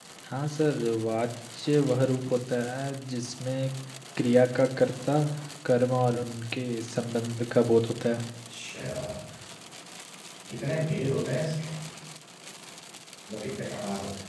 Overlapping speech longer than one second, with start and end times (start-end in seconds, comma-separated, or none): none